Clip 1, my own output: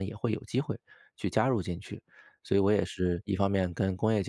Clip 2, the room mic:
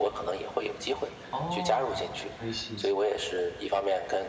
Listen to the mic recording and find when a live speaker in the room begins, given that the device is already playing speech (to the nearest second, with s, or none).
1 s